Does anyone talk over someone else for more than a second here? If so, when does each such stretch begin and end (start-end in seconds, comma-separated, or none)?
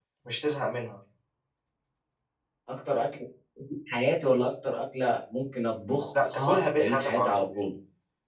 6.2-7.5